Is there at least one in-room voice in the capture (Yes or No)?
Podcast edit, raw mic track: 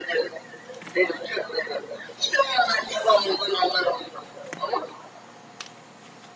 No